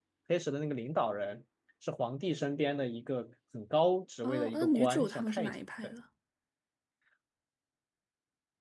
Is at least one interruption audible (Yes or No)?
Yes